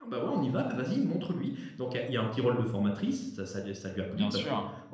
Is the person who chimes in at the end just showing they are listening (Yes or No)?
Yes